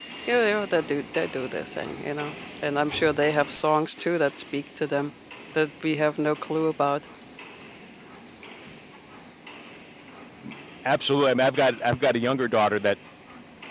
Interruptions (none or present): none